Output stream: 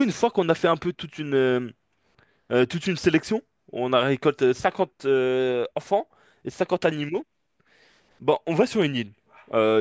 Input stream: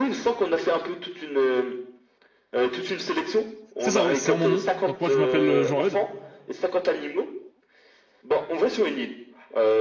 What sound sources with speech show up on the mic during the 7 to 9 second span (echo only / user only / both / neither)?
echo only